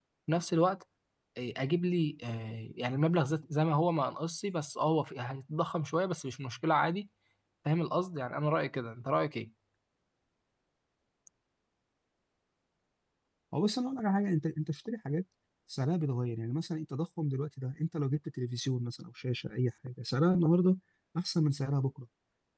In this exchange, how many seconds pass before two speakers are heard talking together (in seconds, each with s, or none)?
none